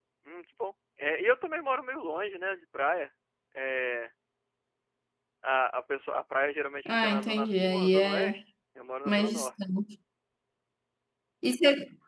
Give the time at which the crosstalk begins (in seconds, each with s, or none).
6.8 s